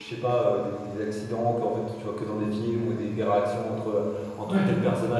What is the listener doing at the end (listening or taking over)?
listening